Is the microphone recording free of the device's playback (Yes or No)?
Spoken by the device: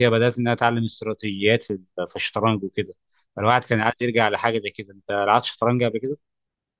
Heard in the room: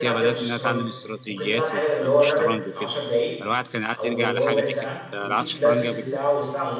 No